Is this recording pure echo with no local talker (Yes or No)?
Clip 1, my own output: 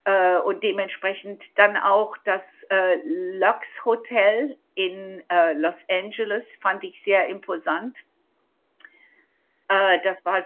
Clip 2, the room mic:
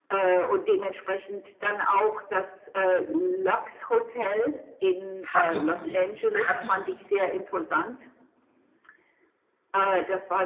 No